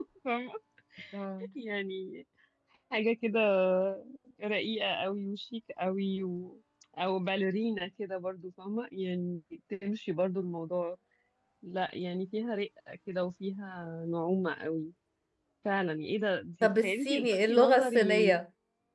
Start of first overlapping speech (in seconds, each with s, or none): 16.6 s